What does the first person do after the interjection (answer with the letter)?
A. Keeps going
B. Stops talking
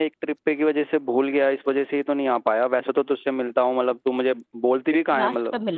B